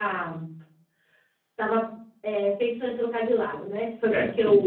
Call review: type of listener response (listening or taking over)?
listening